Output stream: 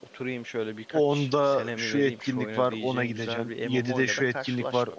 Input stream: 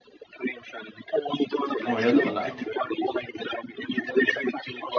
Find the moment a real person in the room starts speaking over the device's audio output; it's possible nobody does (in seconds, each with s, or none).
1.9 s